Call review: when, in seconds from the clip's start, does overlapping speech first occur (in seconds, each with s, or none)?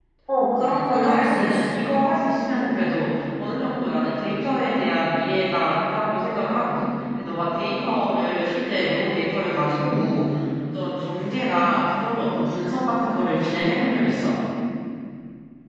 0.5 s